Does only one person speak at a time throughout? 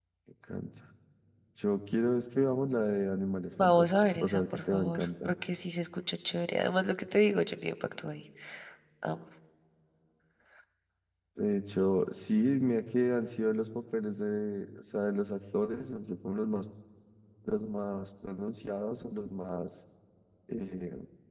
No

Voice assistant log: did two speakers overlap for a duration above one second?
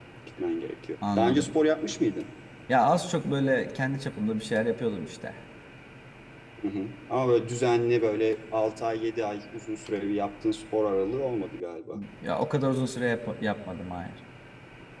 No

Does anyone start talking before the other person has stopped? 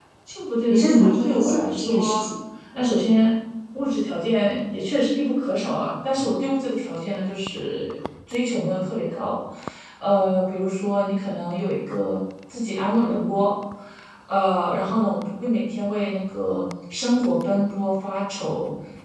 Yes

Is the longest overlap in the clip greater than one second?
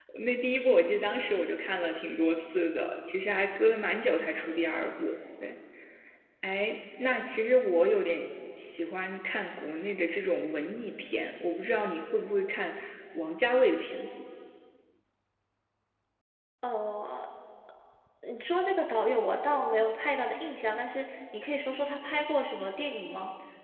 No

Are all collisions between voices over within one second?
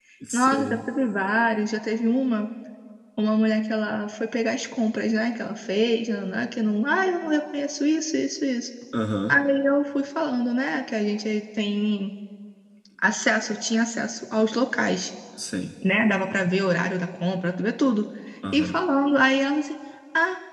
Yes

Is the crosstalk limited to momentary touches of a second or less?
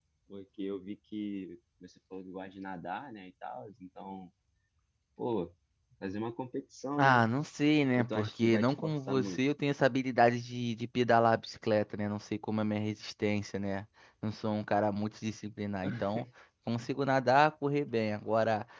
No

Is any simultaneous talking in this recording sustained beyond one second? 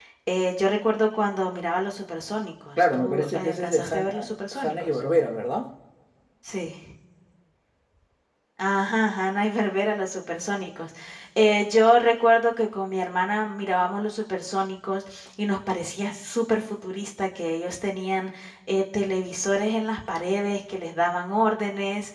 Yes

